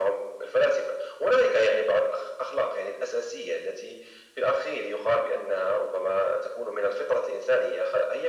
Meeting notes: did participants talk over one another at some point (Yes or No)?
No